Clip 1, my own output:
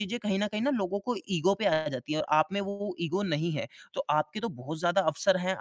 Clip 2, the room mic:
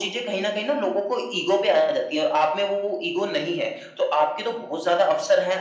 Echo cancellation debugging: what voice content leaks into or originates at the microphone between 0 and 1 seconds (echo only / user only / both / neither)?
echo only